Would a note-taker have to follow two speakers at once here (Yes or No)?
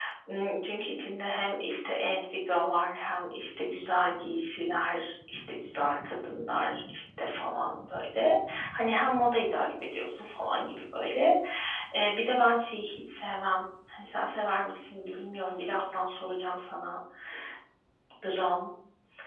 No